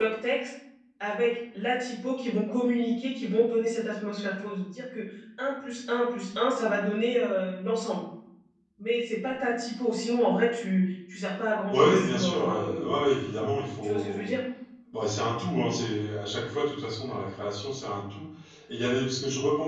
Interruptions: present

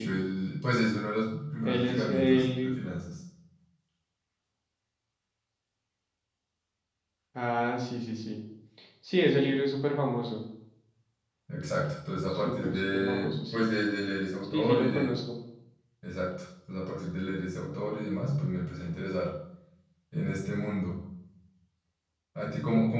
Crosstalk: present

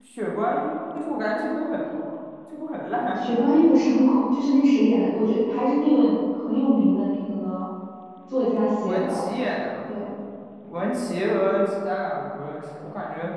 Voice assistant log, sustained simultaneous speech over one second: none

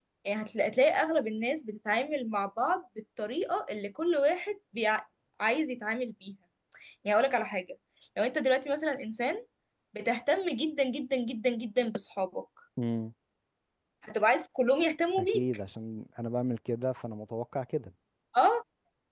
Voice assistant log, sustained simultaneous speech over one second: none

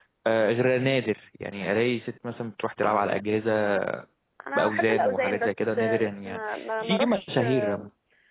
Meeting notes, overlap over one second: present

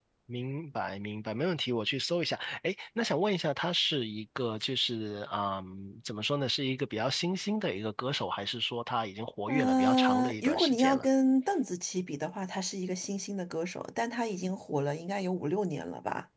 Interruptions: present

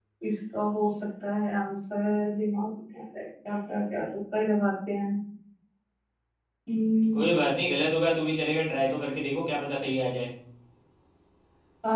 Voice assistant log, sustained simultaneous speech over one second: none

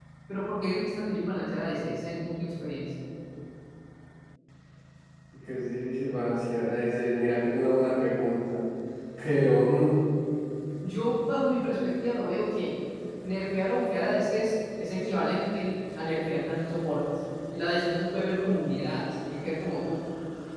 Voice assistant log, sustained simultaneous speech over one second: none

